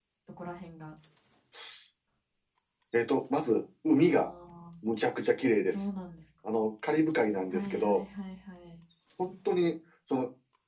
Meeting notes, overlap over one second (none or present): none